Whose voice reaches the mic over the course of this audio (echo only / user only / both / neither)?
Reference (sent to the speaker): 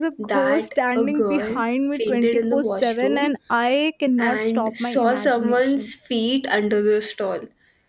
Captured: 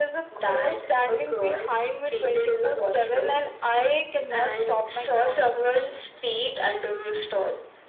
echo only